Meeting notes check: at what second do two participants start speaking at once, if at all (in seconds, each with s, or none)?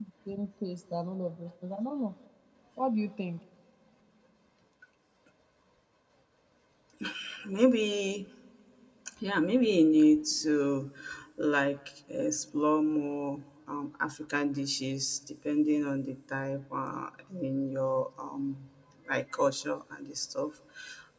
none